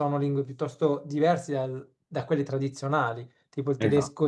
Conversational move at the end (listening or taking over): listening